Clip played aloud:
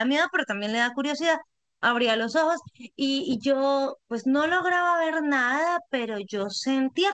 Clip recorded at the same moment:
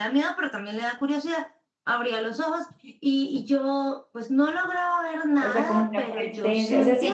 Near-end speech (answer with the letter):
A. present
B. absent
A